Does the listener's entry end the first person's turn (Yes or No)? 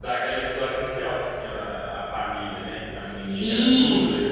Yes